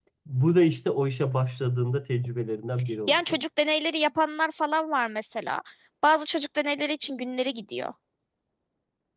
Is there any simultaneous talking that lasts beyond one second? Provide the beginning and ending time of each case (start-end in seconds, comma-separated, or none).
none